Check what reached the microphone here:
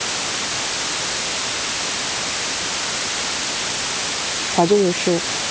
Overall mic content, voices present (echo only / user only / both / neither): user only